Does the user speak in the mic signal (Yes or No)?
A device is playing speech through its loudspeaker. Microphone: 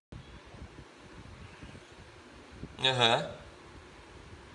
Yes